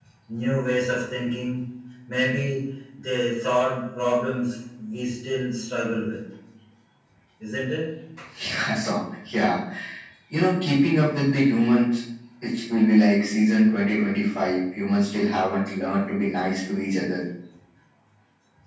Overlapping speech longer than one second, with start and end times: none

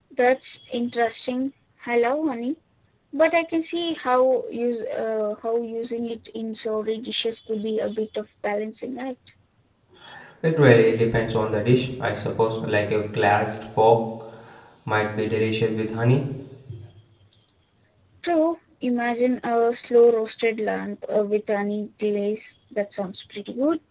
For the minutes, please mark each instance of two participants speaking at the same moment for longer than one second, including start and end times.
none

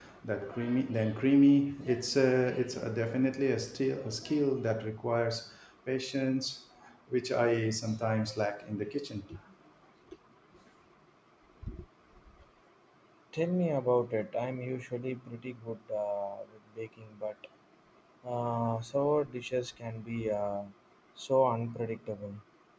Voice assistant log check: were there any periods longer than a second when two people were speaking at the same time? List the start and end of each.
none

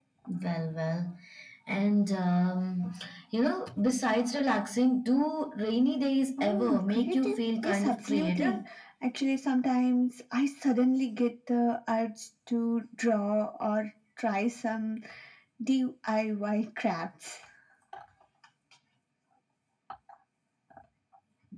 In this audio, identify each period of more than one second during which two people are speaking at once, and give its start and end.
6.4-8.6

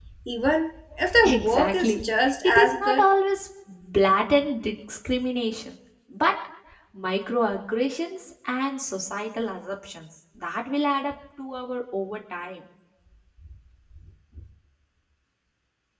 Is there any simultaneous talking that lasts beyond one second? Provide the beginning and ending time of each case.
1.2-3.0

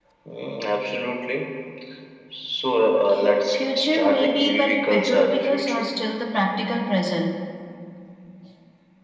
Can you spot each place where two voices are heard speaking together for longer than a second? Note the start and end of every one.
3.5-5.9

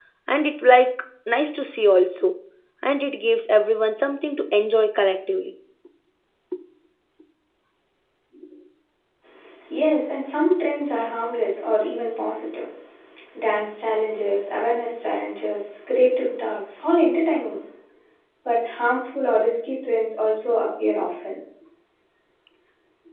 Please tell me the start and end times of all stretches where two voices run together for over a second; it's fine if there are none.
none

